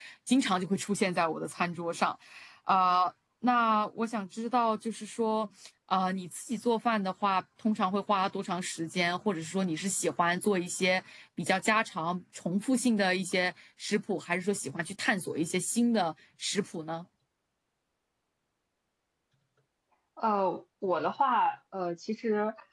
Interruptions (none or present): none